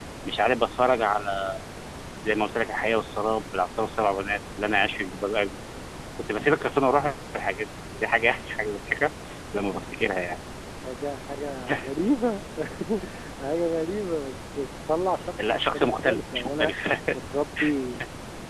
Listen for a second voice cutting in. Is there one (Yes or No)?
Yes